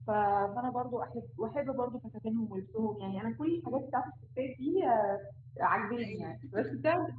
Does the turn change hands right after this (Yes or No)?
No